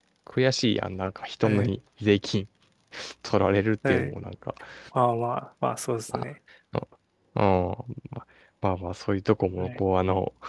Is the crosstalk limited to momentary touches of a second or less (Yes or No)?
Yes